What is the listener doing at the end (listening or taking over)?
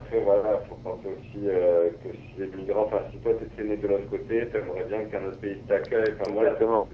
listening